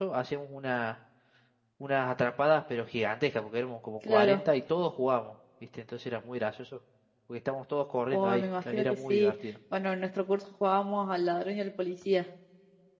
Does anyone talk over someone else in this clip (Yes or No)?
Yes